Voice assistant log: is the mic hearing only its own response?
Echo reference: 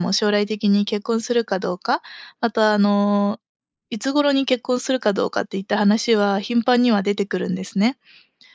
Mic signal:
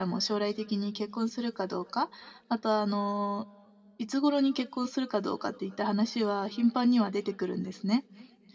Yes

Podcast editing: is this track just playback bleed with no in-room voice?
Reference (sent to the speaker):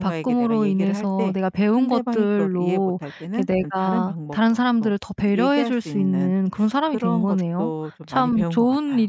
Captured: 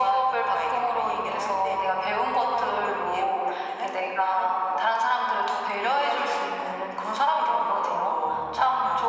Yes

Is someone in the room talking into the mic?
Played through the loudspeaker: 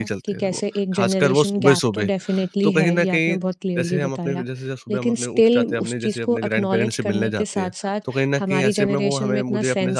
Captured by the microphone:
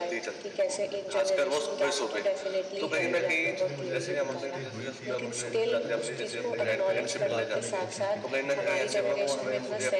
Yes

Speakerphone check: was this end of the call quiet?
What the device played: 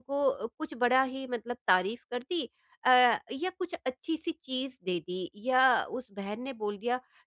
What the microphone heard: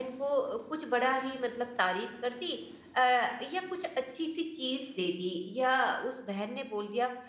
Yes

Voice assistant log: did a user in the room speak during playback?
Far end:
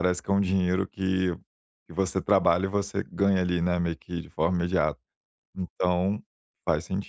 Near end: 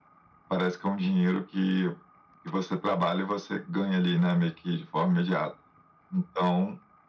No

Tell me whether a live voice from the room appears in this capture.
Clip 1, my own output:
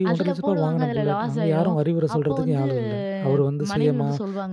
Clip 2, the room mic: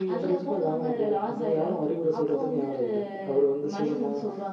No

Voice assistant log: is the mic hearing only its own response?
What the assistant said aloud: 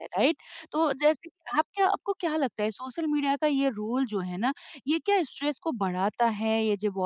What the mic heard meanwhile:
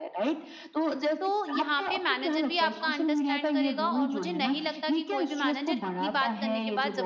No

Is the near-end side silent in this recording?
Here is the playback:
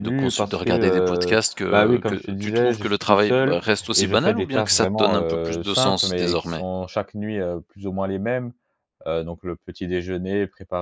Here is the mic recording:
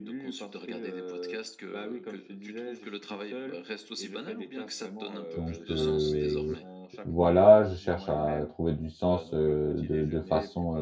No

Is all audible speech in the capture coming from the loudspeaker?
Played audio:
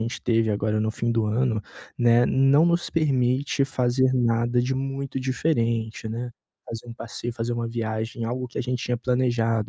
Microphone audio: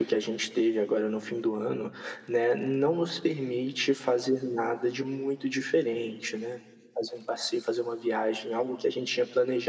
Yes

